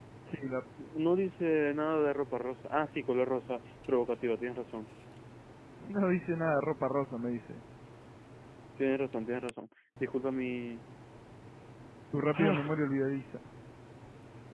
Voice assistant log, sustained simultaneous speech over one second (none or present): none